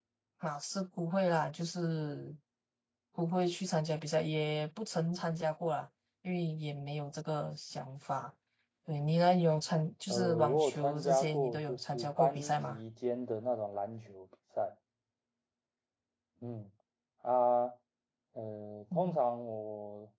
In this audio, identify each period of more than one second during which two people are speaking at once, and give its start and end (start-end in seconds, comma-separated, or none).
10.1-12.8